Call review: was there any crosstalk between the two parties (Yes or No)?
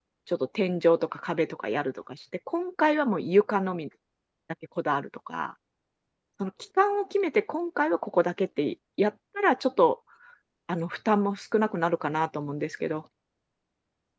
No